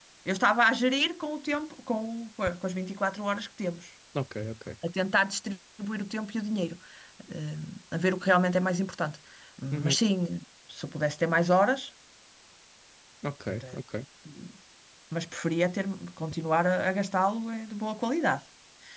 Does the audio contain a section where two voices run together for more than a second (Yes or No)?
No